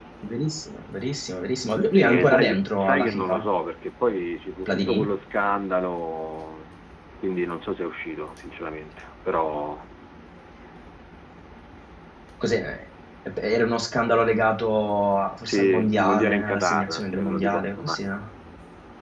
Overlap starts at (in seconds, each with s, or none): 2.0 s